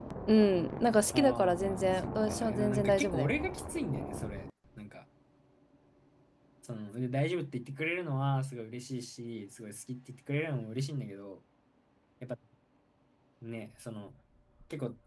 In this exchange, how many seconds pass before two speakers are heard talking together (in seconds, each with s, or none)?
1.1 s